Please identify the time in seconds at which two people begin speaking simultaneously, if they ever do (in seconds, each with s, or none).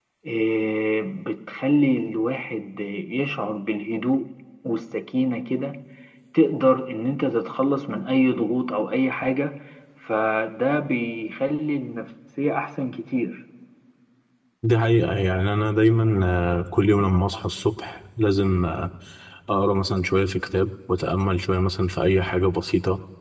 none